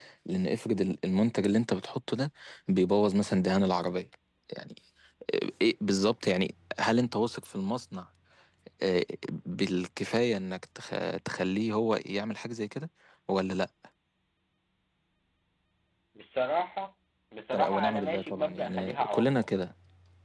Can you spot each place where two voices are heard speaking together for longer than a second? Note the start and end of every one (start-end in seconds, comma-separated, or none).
17.5-19.5